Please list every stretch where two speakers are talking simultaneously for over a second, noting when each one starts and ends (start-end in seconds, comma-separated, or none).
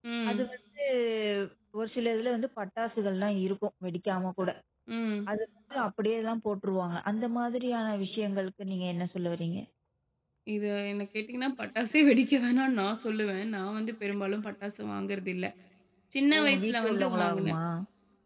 16.3-17.6